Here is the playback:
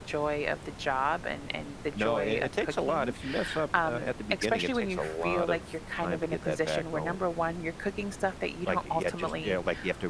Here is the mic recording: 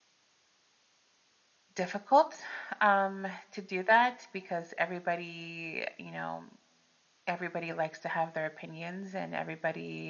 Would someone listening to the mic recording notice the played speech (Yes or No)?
No